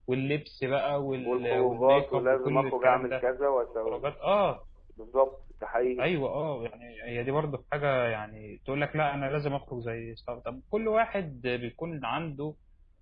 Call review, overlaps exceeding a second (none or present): present